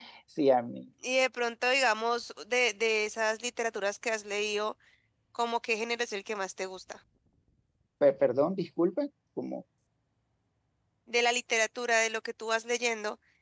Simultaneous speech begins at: none

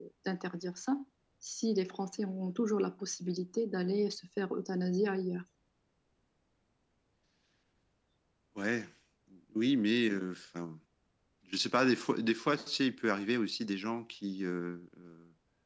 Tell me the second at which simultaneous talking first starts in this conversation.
none

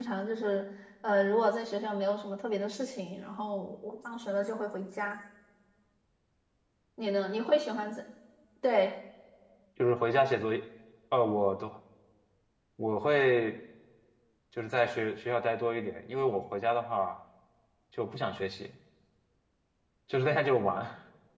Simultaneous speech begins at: none

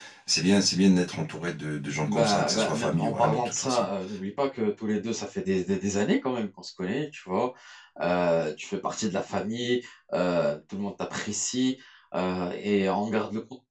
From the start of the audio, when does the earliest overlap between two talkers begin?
2.1 s

